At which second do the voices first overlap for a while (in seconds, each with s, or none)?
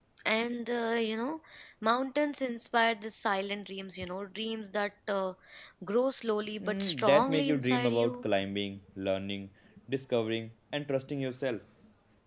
6.6 s